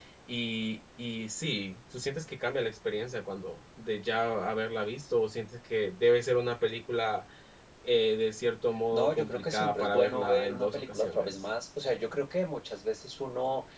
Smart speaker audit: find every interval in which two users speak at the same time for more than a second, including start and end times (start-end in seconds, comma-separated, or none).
8.9-11.4